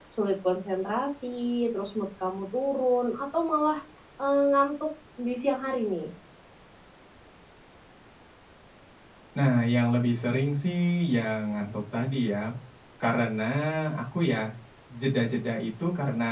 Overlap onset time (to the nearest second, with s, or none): none